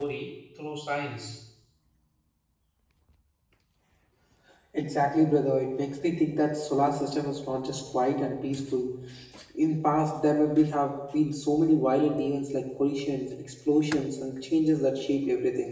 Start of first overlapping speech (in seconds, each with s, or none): none